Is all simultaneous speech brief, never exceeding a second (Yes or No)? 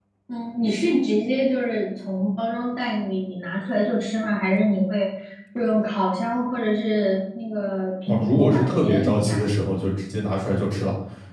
No